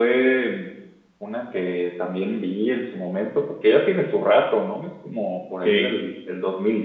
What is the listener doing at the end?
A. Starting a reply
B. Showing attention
B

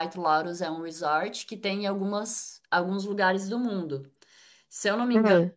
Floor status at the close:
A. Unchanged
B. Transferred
A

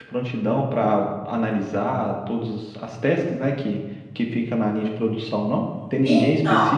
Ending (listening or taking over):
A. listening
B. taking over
A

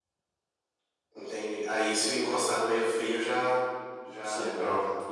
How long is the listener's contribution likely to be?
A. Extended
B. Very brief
A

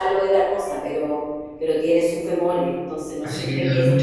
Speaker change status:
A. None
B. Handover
B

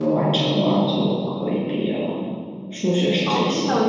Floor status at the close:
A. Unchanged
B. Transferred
B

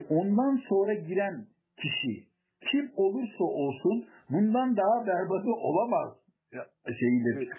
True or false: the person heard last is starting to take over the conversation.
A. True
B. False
A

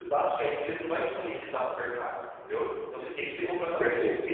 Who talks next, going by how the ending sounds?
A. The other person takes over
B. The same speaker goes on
B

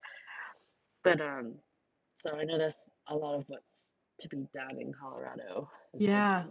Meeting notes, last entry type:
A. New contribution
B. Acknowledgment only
A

